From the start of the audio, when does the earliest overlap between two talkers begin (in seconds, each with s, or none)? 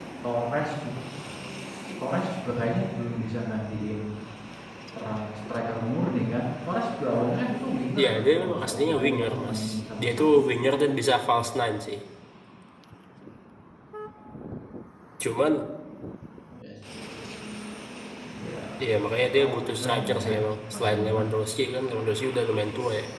8.0 s